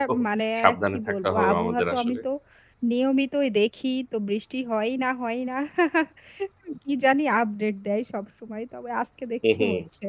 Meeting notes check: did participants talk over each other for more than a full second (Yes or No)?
Yes